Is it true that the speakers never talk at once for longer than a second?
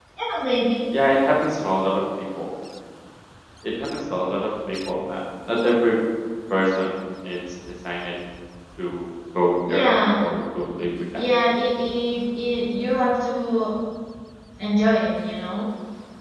Yes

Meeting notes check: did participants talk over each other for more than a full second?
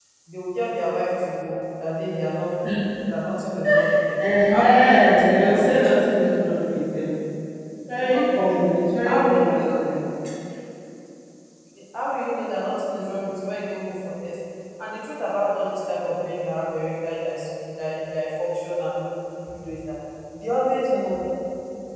Yes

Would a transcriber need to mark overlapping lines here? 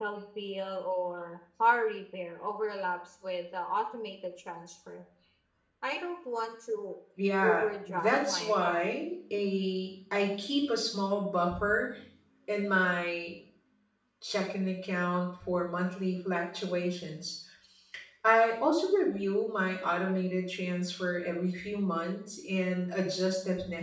Yes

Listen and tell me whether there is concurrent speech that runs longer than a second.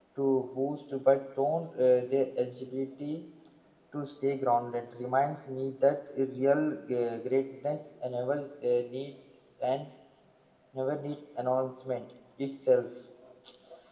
No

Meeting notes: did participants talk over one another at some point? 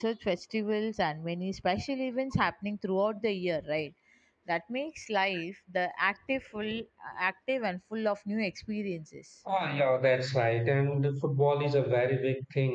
No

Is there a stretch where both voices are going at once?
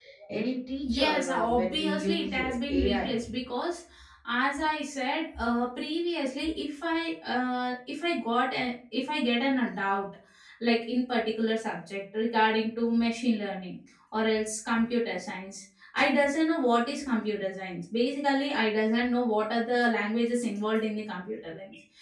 Yes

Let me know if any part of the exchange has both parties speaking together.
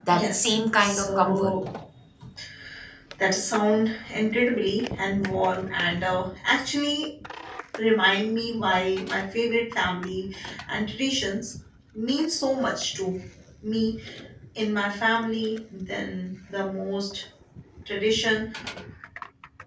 Yes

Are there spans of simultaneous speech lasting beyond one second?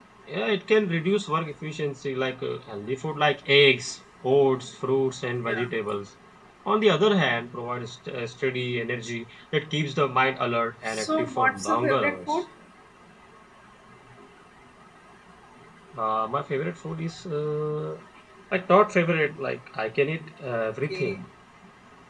Yes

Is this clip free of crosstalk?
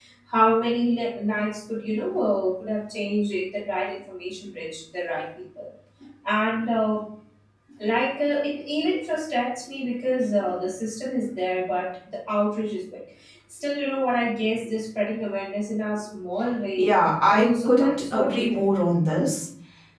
No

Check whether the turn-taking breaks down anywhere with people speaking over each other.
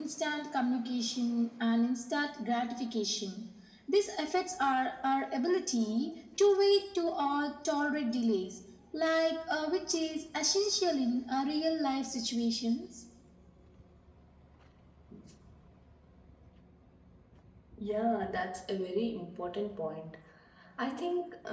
No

